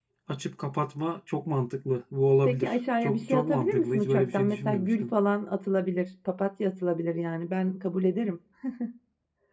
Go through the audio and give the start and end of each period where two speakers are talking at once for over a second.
2.4-5.1

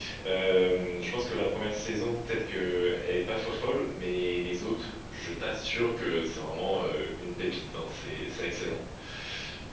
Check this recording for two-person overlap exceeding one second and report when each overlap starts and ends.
none

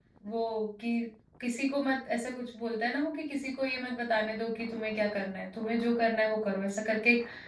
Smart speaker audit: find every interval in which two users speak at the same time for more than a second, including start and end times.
none

